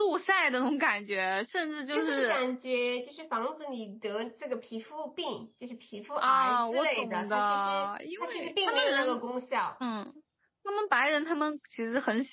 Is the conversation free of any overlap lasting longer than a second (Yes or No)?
No